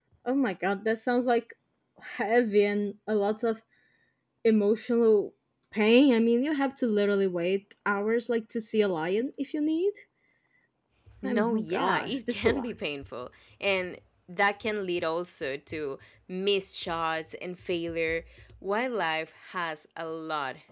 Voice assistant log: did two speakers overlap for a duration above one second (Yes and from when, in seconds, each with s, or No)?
Yes, from 11.2 s